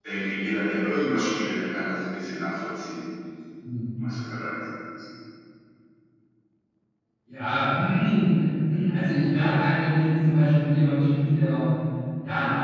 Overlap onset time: none

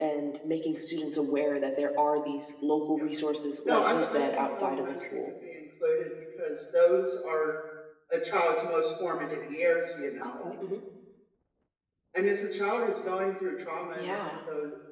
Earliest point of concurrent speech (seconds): 3.6 s

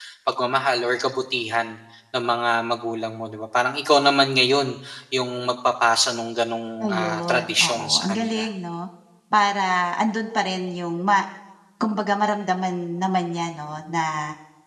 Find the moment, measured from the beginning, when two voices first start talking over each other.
6.8 s

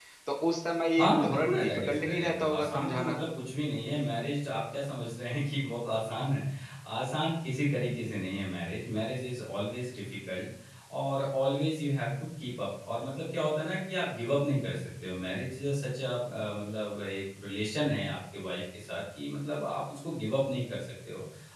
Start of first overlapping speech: 1.0 s

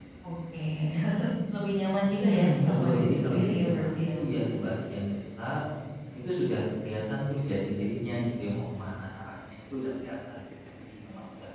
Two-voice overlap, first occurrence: 2.2 s

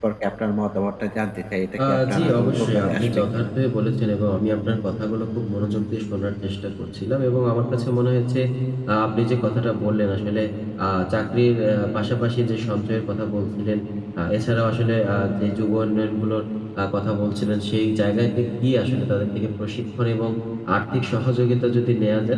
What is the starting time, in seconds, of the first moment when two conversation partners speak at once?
1.8 s

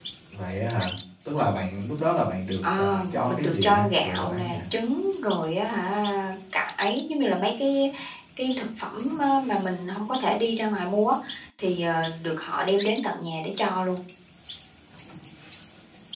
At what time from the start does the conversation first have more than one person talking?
2.6 s

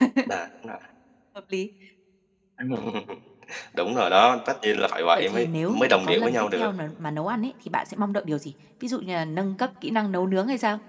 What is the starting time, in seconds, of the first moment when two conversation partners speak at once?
5.2 s

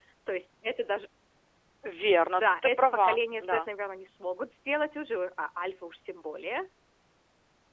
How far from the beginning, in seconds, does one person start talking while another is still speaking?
2.4 s

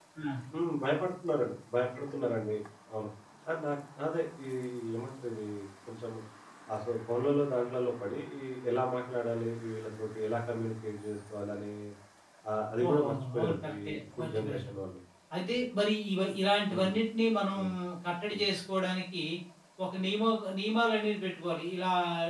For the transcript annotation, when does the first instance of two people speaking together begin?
12.8 s

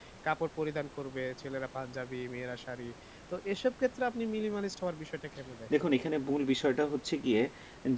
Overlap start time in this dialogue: none

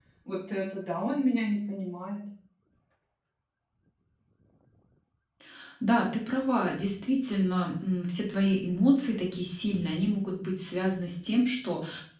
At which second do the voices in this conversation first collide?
none

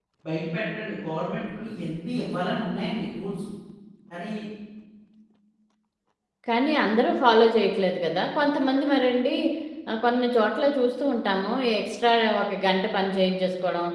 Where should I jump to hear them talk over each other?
none

